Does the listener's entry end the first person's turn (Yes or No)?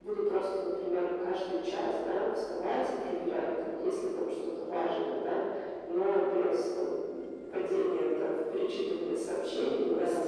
No